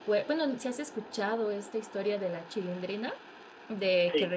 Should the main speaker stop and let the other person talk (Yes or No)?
No